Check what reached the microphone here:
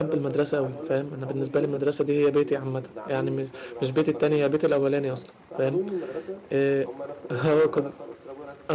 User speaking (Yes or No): Yes